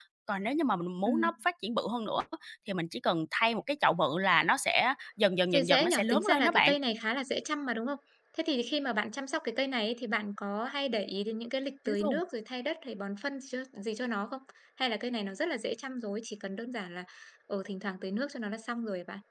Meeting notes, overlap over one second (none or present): present